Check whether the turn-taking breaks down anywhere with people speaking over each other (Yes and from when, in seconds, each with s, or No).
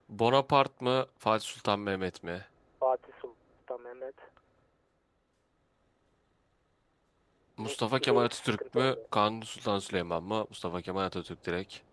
Yes, from 7.6 s